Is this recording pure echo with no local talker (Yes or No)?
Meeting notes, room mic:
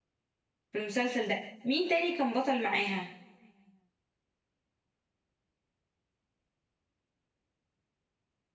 No